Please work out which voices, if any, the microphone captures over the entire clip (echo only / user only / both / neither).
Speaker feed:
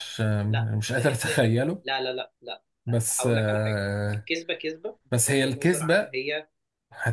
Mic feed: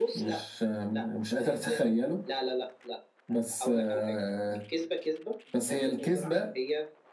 echo only